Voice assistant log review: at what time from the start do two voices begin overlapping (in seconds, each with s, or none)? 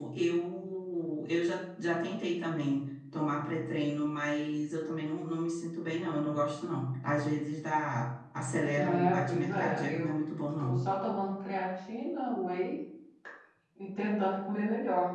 8.8 s